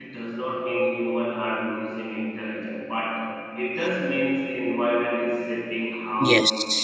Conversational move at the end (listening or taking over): taking over